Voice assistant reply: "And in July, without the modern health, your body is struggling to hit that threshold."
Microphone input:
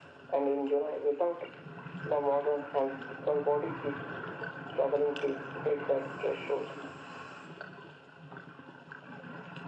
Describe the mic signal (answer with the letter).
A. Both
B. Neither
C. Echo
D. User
C